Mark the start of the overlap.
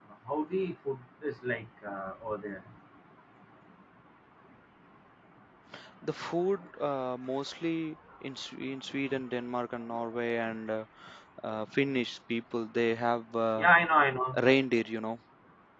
none

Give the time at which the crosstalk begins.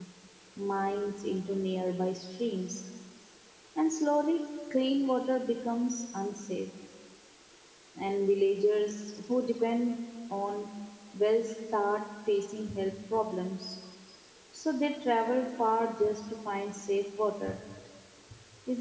none

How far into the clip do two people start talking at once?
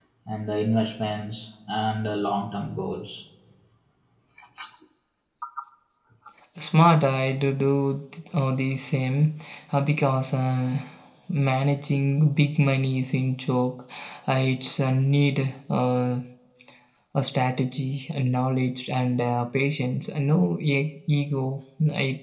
none

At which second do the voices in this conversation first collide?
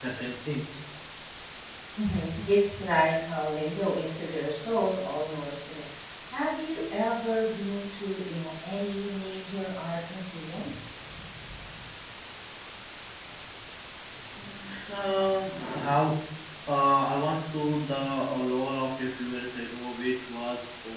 none

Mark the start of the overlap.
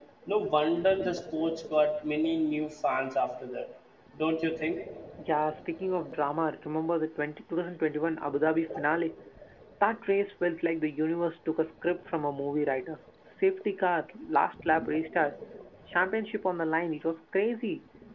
none

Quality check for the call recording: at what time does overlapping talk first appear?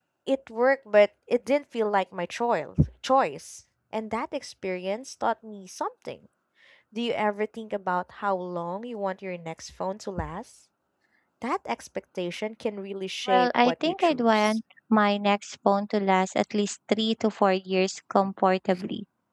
13.3 s

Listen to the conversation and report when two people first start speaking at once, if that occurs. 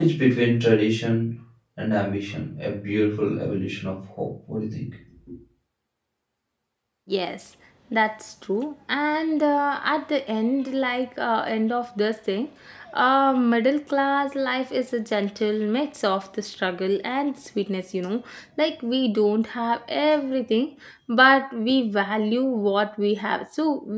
none

